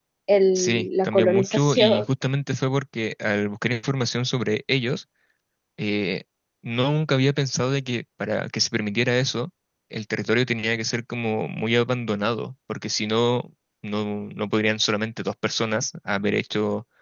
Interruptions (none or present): present